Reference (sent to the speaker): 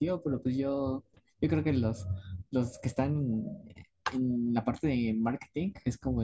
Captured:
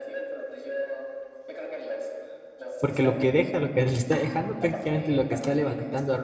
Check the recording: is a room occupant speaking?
Yes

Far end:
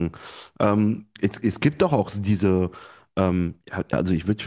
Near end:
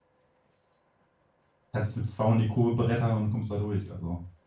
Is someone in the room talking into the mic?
Yes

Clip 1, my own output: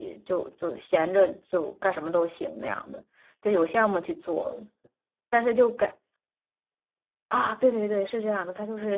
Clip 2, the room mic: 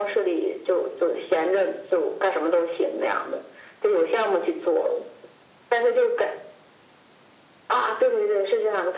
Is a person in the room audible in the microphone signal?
No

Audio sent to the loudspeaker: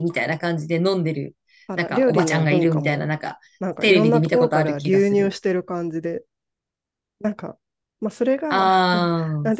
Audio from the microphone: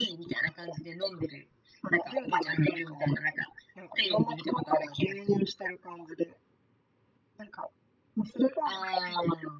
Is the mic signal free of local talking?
Yes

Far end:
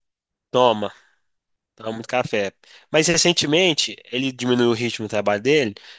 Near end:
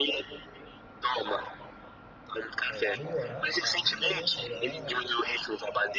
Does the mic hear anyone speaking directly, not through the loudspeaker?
Yes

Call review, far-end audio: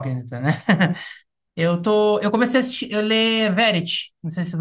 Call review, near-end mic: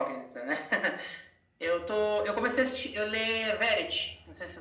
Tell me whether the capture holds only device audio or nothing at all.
Yes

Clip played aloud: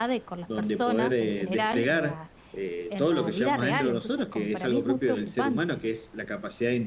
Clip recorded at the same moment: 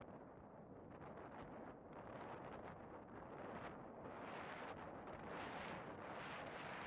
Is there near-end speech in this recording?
No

